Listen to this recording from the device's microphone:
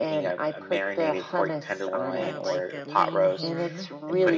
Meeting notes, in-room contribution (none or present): present